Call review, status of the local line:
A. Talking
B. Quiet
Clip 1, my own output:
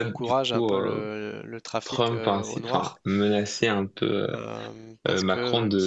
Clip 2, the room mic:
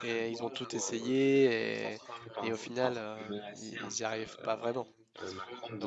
A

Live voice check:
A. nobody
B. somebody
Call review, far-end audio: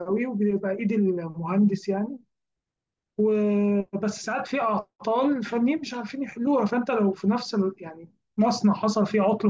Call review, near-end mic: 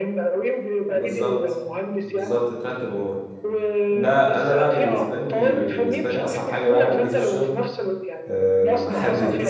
B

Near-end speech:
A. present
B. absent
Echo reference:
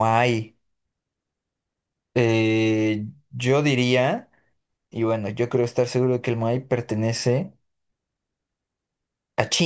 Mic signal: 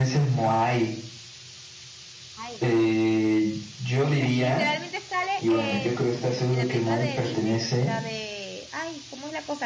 A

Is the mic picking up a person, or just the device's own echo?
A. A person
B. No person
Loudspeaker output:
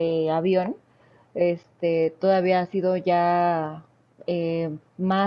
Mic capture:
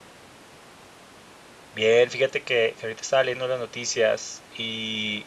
A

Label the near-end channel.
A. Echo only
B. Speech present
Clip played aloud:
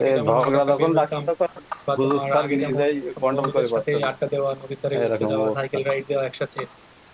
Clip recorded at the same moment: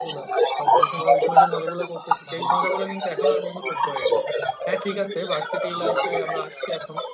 B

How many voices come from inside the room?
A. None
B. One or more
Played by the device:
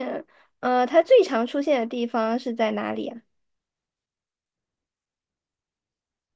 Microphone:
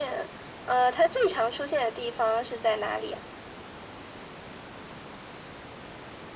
A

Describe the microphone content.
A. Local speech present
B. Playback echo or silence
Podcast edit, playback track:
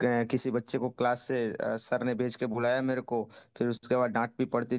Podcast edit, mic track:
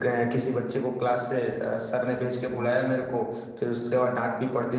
B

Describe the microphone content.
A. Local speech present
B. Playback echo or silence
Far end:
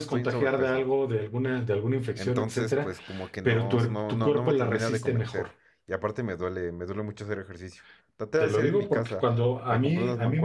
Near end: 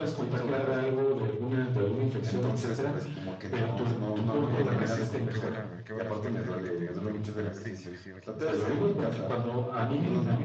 A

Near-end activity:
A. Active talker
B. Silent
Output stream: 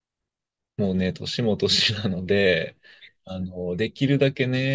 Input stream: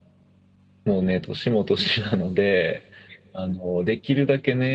B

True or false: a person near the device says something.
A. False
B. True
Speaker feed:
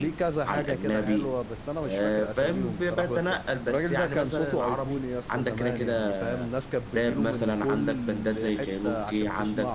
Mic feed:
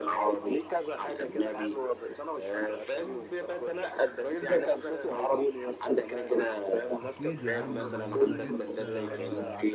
B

